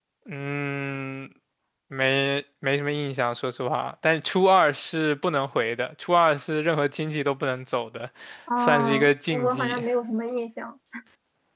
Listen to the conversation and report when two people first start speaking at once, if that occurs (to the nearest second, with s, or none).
9 s